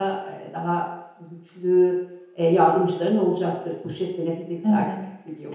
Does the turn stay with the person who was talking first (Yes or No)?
No